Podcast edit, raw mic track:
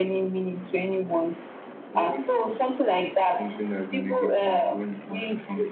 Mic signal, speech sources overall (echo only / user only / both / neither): both